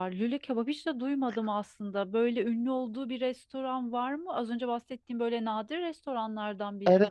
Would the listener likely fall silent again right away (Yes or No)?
No